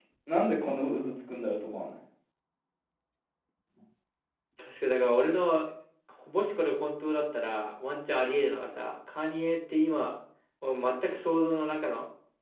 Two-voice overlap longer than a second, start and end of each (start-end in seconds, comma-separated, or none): none